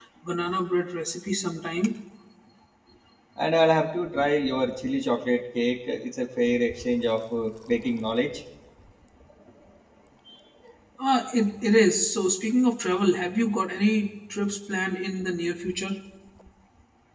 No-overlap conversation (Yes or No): Yes